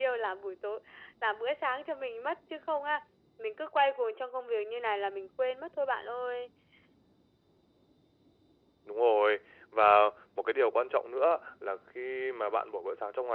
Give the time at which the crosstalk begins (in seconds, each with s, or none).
none